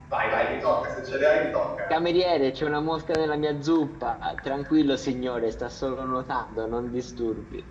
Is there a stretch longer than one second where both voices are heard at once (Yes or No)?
No